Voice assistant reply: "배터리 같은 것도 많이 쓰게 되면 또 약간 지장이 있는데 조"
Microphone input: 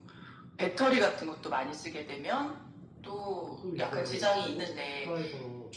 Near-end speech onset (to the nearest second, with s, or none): 4 s